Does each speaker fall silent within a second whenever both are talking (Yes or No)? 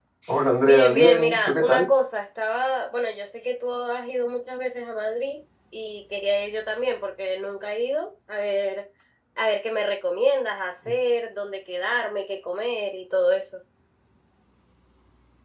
No